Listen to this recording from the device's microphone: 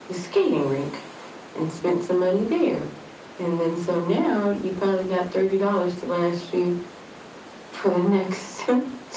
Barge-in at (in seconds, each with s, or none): none